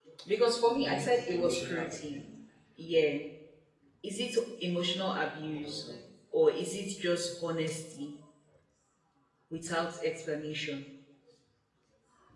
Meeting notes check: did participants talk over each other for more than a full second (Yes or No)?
Yes